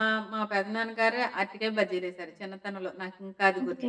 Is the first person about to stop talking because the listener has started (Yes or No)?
Yes